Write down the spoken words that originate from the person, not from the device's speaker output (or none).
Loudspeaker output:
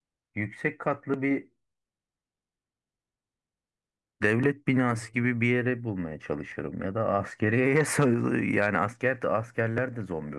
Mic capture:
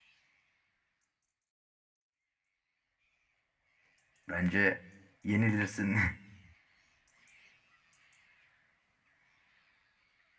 bence yenilirsin.